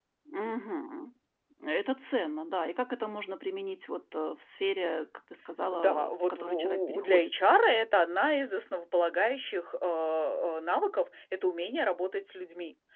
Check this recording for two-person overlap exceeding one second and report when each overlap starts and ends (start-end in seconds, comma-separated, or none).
5.8-7.3